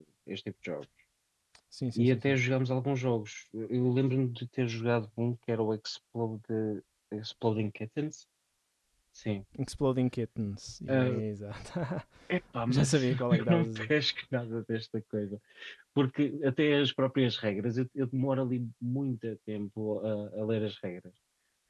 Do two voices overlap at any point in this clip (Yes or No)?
Yes